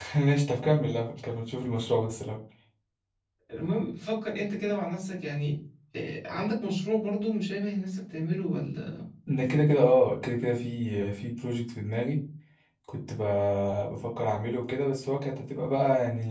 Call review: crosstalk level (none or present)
none